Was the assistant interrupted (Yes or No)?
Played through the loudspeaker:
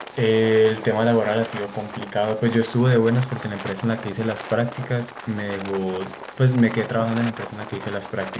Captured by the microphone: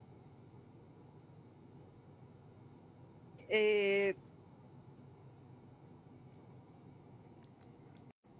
Yes